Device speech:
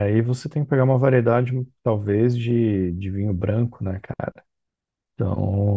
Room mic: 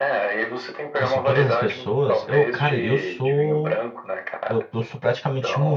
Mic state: both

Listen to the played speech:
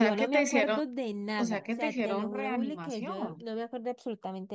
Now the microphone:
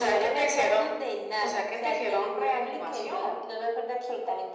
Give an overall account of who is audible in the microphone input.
echo only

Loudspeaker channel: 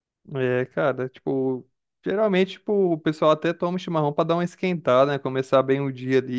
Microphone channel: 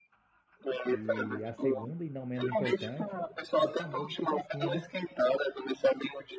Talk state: both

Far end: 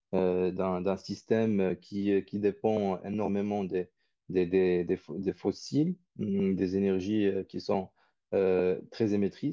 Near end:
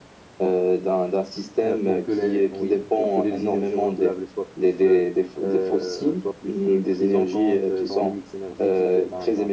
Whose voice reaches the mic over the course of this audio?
both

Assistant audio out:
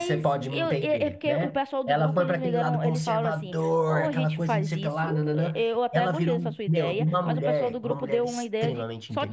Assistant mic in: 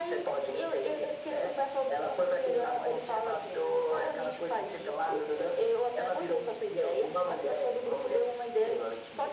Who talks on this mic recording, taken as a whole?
echo only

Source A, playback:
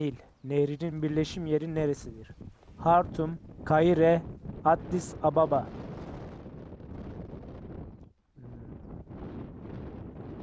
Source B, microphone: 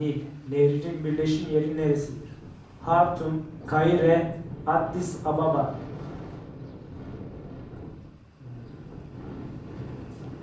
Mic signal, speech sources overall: echo only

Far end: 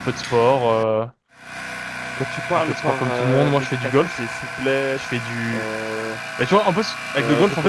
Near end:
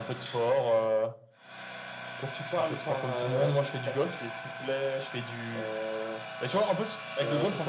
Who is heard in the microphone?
echo only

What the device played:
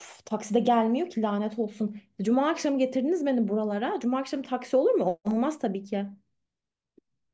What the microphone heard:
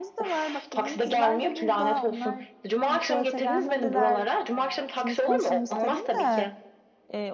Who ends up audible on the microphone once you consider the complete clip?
both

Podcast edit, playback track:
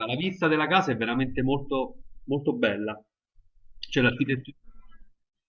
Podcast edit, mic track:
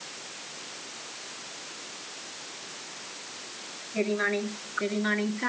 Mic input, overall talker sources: user only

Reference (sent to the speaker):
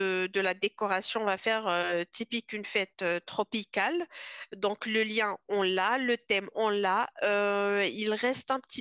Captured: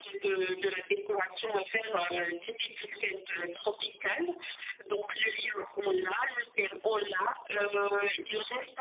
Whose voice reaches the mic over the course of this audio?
echo only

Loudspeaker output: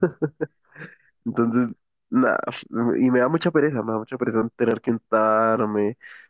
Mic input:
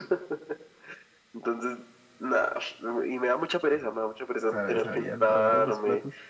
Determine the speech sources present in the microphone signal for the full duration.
both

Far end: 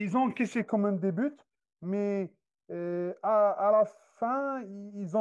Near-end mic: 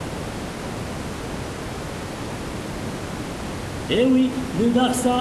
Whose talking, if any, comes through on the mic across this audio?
user only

